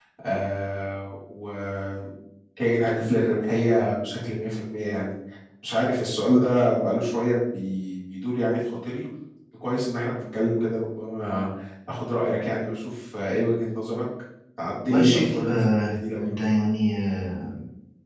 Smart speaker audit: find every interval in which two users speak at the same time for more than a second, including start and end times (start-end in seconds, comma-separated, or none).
14.9-16.4